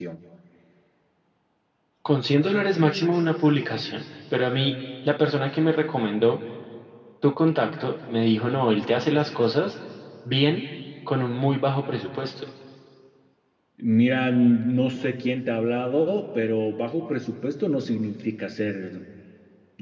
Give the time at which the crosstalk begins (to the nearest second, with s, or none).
none